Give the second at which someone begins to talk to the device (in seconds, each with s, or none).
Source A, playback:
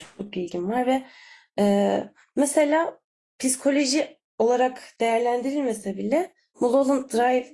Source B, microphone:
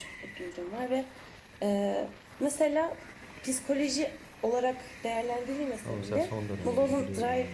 5.8 s